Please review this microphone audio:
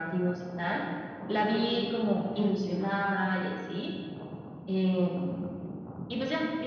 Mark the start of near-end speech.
2.3 s

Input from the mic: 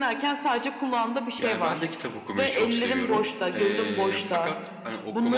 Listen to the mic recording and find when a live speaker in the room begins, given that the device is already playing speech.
1.4 s

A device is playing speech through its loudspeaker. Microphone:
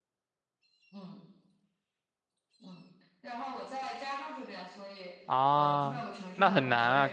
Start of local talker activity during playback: 5.2 s

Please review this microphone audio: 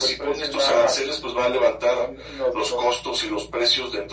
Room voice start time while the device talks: none

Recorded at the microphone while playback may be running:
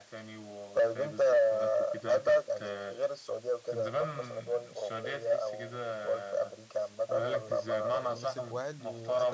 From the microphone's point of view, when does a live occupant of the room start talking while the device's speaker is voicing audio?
8.0 s

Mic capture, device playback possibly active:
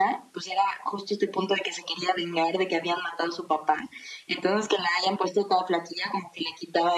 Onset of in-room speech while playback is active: none

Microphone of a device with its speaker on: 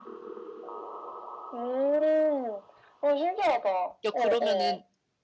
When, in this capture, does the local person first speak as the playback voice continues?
4.0 s

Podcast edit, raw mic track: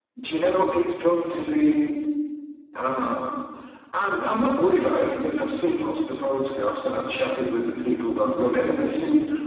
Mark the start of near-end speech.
none

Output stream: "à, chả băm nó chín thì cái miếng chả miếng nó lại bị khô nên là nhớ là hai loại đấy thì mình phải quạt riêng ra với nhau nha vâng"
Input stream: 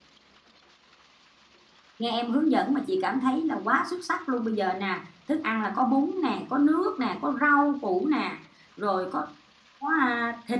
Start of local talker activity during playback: 2.0 s

